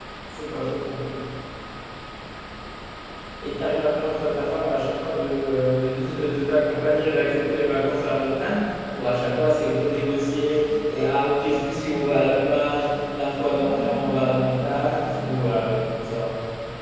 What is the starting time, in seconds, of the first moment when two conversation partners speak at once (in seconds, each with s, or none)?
13.5 s